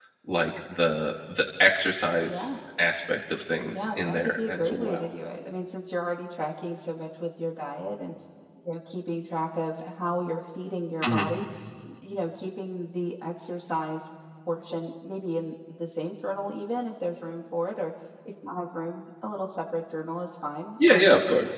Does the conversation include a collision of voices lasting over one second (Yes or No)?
Yes